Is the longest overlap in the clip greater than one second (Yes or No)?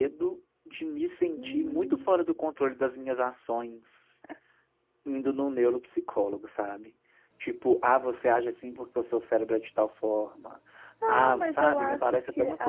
Yes